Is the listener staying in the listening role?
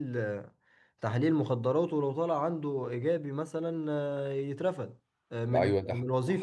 No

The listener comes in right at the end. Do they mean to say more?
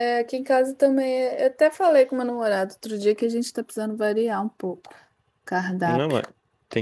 Yes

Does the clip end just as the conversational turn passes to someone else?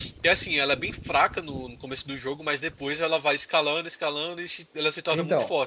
Yes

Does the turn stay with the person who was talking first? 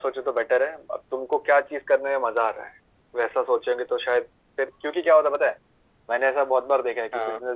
Yes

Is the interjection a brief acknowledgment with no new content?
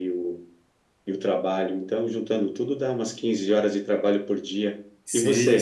No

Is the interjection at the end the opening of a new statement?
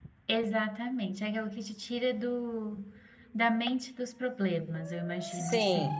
Yes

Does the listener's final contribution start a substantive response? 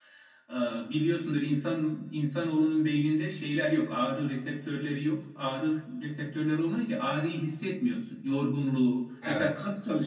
No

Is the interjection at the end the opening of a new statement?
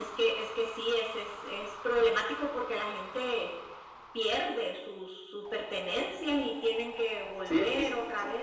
Yes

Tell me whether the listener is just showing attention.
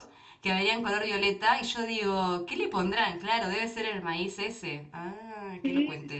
No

